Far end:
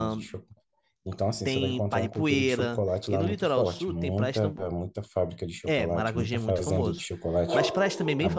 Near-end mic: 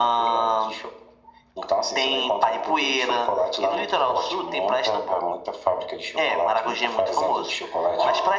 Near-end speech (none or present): none